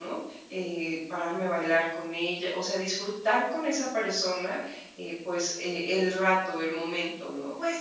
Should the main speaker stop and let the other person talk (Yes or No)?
Yes